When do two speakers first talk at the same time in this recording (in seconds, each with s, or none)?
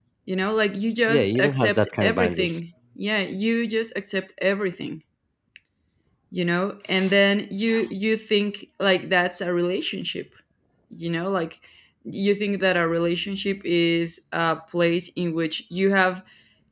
1.1 s